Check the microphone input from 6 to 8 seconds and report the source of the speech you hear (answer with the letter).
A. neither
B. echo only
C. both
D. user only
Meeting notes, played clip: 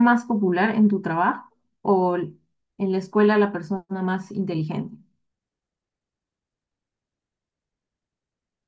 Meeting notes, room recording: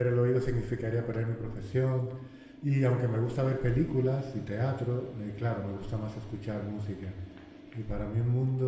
D